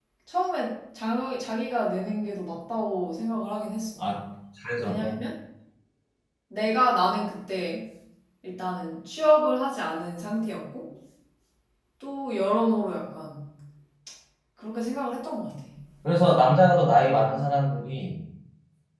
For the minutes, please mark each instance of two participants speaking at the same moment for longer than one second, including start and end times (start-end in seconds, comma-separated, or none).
none